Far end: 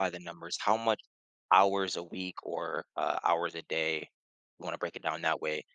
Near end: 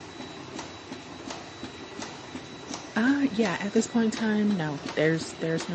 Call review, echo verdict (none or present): none